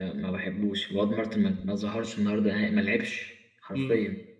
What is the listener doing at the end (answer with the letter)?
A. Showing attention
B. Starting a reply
B